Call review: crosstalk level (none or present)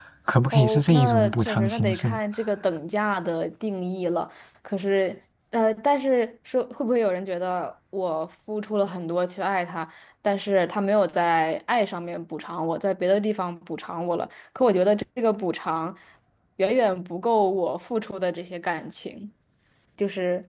present